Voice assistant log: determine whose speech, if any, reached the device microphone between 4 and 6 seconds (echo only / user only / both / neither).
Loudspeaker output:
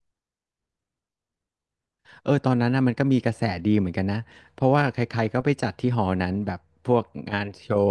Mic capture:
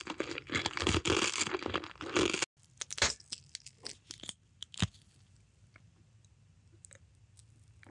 neither